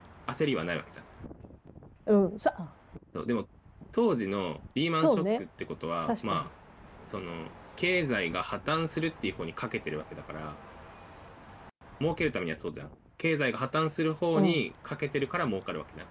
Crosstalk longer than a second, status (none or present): none